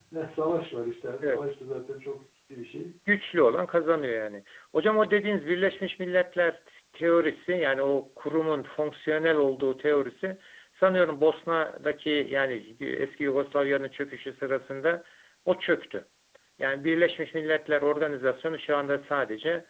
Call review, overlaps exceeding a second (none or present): none